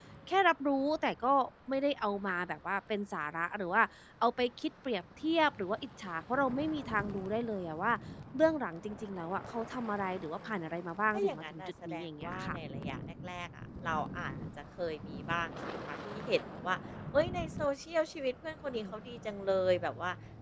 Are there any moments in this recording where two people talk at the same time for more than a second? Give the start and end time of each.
11.1-12.6

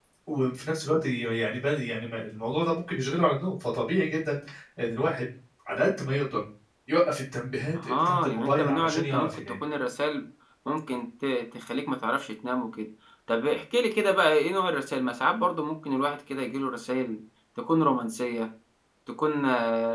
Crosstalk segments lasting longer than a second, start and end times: 7.8-9.3

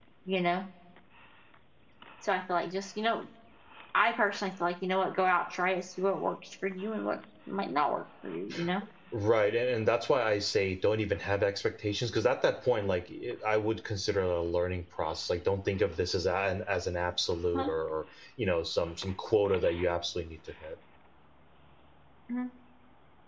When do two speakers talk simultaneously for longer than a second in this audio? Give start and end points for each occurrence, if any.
none

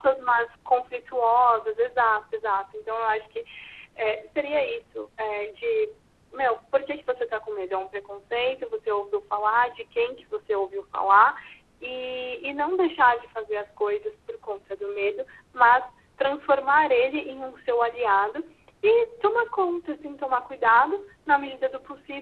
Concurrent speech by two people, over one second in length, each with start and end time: none

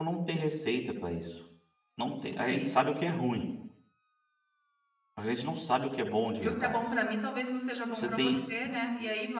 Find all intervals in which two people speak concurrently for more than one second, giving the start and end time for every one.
none

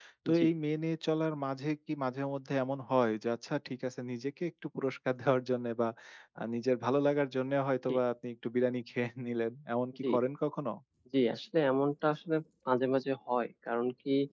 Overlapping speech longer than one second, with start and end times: none

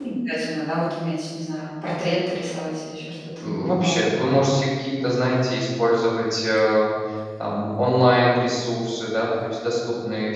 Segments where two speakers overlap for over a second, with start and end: none

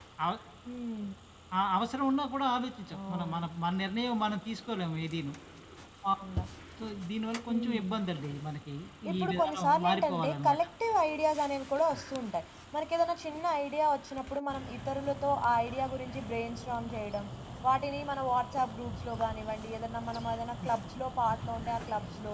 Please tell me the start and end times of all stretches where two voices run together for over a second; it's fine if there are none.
9.2-10.6

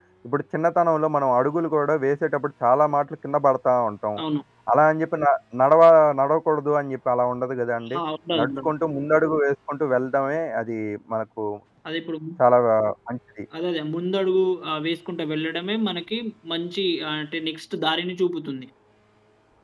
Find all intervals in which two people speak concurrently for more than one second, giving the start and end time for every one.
none

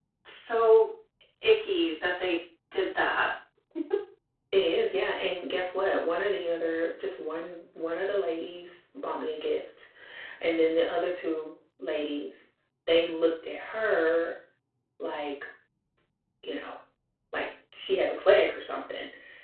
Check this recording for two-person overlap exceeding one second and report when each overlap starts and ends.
none

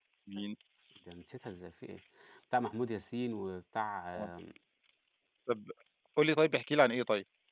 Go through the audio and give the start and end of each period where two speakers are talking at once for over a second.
none

